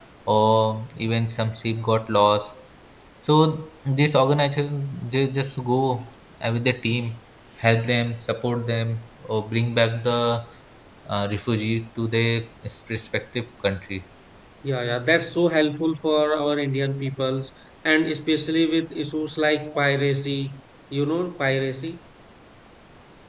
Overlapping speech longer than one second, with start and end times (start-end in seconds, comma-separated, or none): none